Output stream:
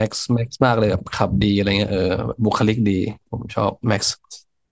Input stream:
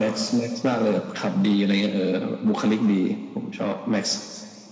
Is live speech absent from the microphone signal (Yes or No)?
Yes